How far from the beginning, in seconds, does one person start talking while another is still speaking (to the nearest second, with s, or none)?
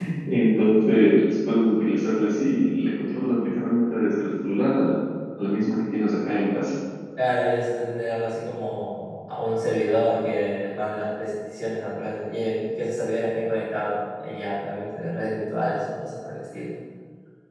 none